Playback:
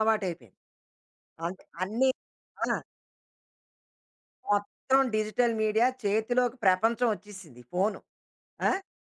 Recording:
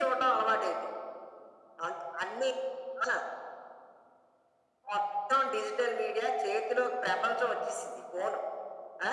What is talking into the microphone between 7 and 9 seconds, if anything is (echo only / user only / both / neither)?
echo only